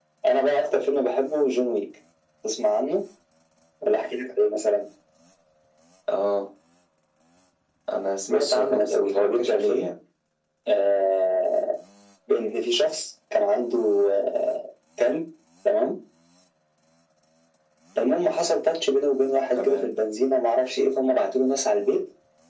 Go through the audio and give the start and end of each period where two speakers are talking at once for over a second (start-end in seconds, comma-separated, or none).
8.3-9.9